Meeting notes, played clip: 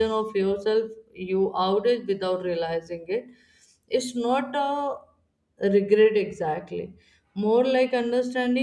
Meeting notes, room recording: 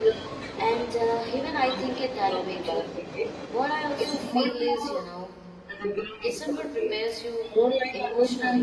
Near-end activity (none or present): present